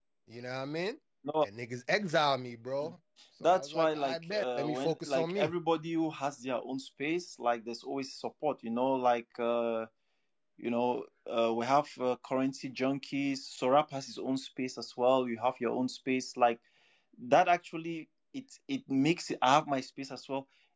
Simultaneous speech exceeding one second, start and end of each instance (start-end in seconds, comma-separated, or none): 3.4-5.5